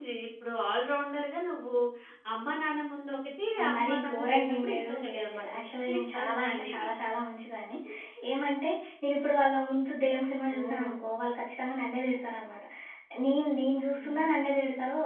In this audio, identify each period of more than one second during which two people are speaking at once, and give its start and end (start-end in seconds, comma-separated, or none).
3.6-6.9